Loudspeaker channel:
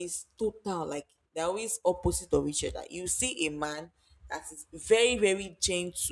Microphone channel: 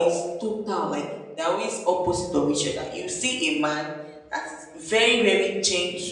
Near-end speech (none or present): none